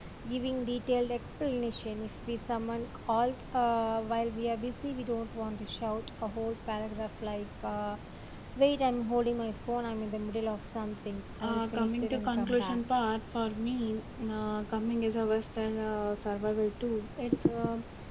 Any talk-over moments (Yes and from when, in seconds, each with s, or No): Yes, from 11.4 s